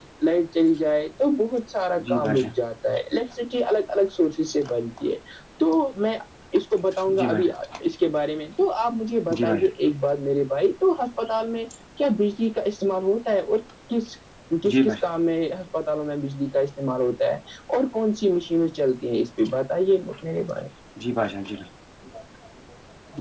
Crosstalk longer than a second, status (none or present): none